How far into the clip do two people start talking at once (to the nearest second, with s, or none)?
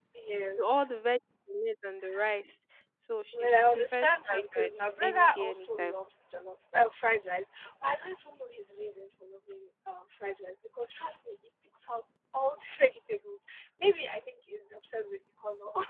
3 s